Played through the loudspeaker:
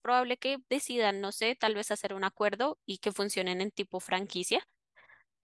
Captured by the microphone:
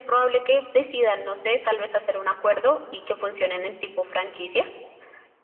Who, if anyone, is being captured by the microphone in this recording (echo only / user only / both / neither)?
echo only